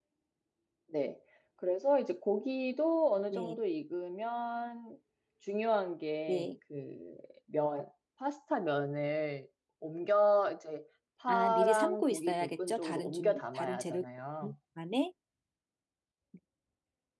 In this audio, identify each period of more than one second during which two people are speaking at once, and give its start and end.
11.3-14.0

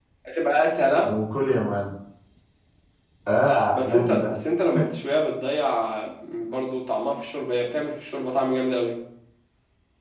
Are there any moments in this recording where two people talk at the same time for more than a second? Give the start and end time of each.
none

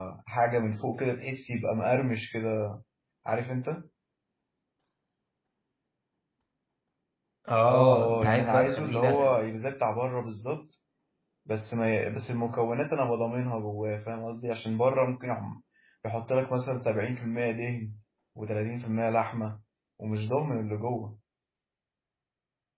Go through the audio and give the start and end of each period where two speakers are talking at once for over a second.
7.7-9.3

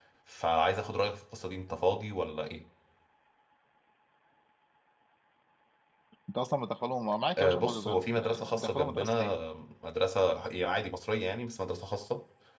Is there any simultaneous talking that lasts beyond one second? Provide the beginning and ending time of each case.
7.4-9.3

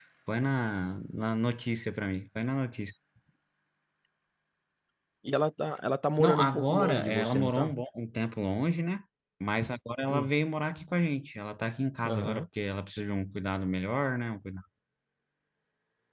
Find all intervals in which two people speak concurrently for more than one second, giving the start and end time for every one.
6.2-7.7

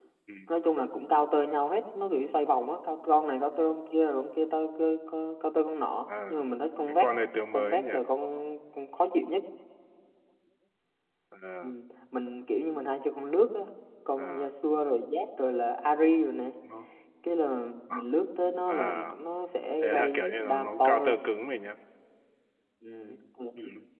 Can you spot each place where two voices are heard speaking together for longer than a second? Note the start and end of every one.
19.8-21.2

